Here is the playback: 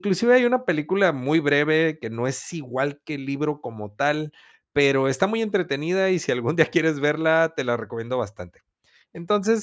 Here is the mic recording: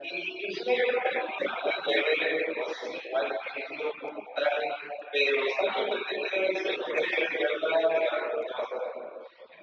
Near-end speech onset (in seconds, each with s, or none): none